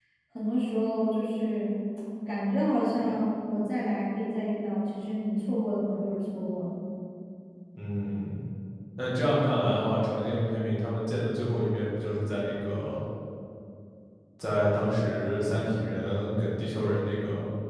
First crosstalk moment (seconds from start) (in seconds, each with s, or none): none